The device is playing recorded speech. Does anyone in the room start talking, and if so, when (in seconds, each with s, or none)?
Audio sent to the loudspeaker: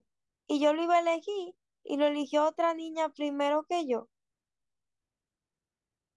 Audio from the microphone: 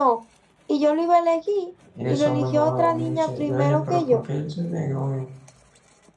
1.9 s